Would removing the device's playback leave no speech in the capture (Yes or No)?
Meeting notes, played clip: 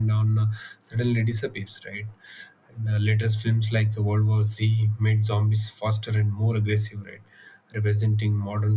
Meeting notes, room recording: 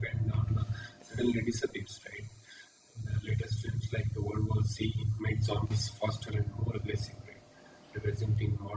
Yes